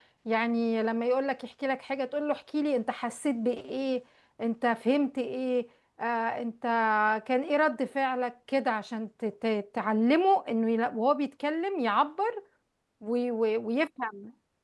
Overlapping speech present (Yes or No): No